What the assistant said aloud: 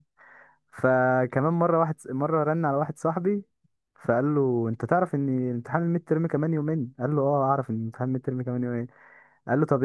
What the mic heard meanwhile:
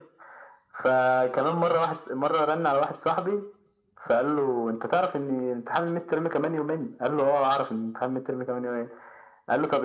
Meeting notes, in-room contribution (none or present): none